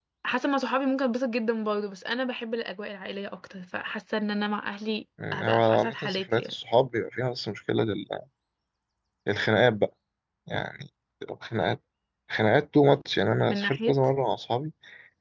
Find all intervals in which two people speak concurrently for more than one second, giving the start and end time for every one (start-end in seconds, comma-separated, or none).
5.3-6.5